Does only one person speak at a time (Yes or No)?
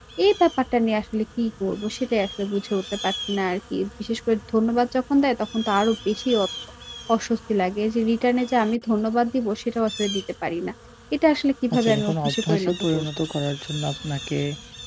No